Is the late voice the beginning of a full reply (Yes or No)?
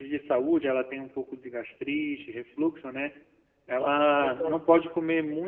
No